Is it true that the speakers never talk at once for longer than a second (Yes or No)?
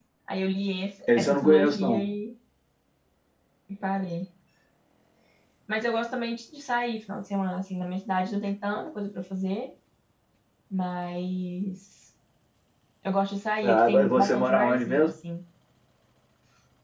No